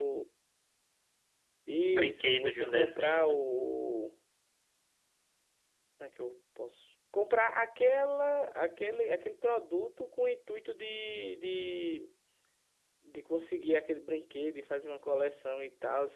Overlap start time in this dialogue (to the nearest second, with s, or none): 2 s